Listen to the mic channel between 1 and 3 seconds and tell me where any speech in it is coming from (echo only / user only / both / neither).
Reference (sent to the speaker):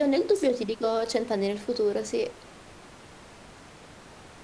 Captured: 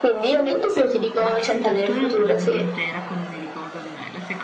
both